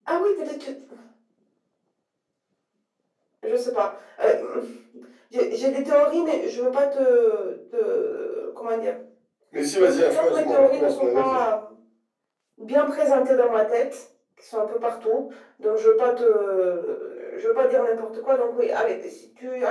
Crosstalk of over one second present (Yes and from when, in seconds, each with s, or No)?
Yes, from 9.8 s